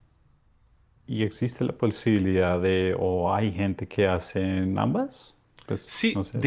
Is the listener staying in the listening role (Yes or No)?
No